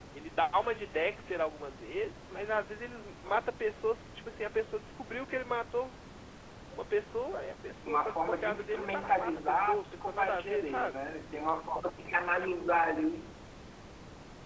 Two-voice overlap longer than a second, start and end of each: 7.9-11.0

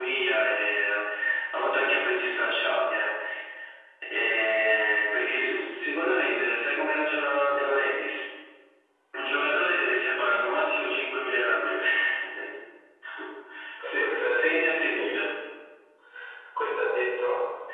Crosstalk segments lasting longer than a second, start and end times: 13.9-15.2

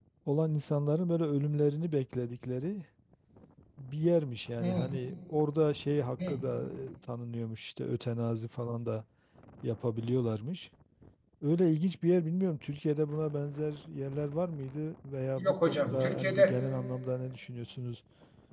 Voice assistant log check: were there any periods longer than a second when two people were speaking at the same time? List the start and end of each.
15.4-16.6

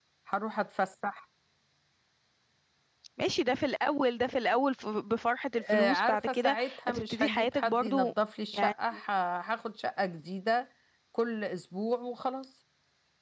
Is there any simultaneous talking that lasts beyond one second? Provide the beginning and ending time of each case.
5.6-8.1

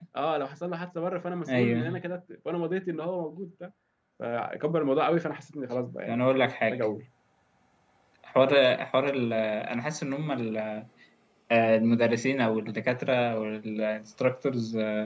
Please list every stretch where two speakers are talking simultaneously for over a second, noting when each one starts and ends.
none

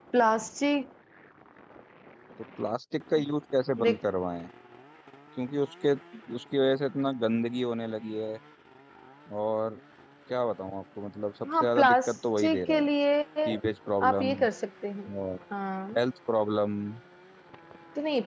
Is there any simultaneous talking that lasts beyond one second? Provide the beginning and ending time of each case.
11.6-12.9

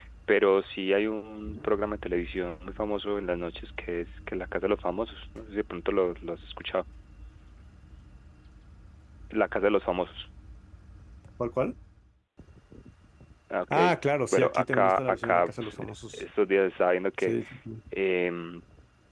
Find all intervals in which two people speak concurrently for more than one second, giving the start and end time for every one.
14.3-16.2

